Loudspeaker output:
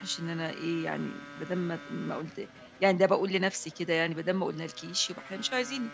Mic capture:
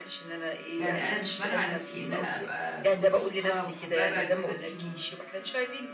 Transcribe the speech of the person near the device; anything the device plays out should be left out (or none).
يعني أنا مش مانعة نفسي إن أنا أبقى صديقة محببة لواحدة فيهم،